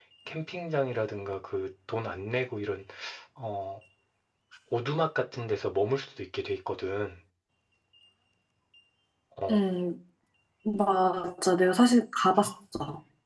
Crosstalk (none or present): none